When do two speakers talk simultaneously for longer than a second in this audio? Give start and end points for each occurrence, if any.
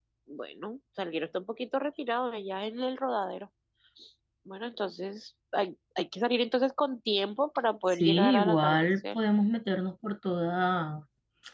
7.9-9.2

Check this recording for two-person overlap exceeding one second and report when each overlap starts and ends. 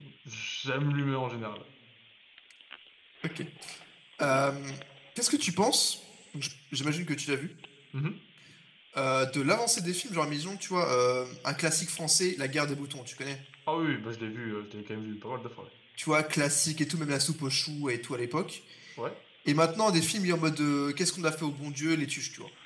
none

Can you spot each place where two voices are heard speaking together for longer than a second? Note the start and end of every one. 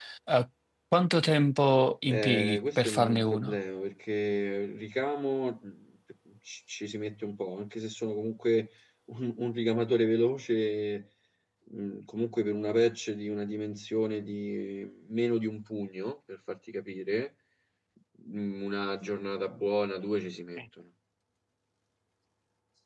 2.1-3.6

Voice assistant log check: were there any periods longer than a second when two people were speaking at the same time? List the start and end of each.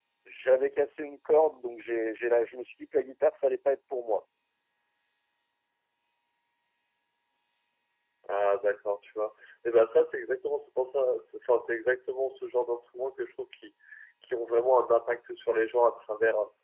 none

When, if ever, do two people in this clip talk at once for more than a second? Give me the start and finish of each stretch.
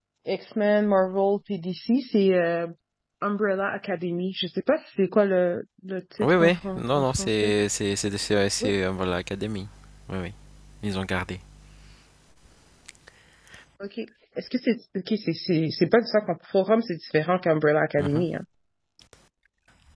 6.2-7.5

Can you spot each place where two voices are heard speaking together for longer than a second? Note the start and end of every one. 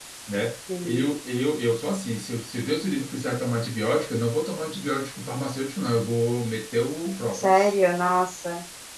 none

